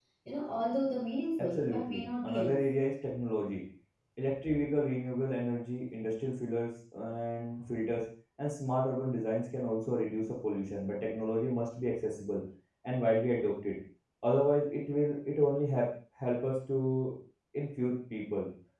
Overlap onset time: 1 s

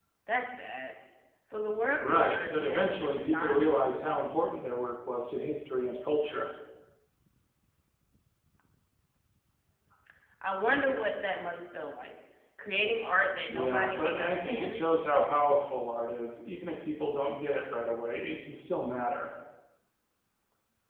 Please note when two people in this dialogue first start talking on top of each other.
2 s

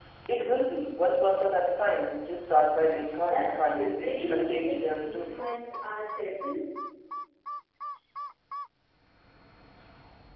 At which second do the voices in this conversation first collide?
3 s

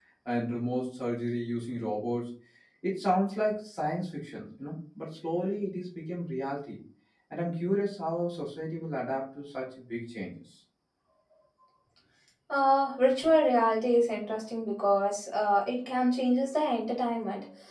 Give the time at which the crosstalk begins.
none

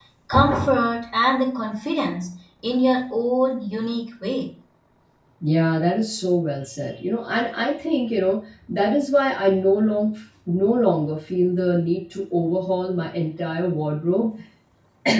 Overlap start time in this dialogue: none

